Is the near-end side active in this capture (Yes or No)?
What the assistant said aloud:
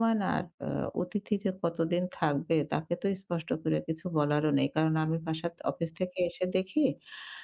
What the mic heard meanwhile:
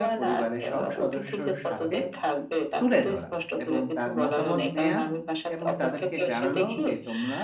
Yes